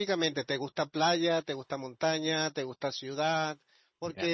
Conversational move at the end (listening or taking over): listening